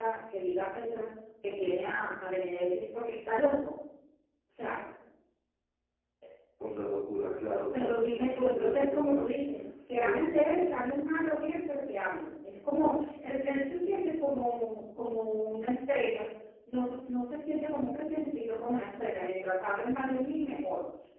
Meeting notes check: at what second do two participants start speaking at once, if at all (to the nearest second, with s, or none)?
8 s